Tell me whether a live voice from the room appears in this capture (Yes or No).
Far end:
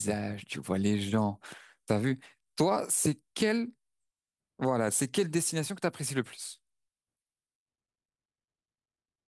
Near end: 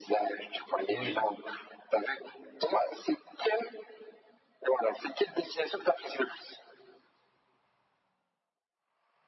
Yes